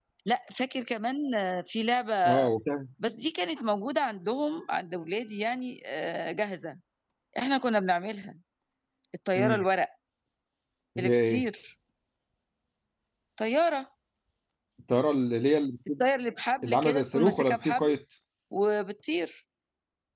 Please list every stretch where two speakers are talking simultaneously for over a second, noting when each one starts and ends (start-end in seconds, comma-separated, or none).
16.6-17.9